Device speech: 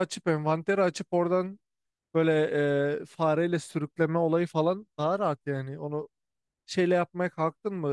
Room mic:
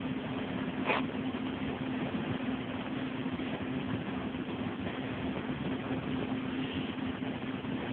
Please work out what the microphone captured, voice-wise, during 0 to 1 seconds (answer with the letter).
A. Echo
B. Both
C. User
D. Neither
D